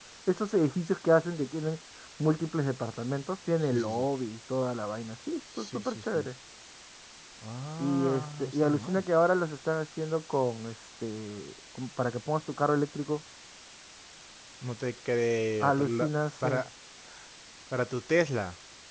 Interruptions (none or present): present